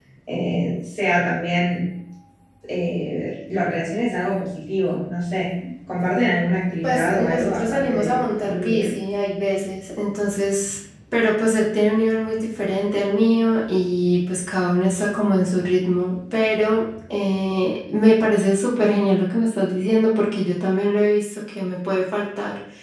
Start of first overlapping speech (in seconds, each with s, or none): 6.8 s